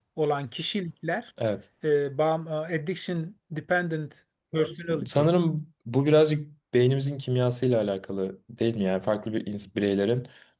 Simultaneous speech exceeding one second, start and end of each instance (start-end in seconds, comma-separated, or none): none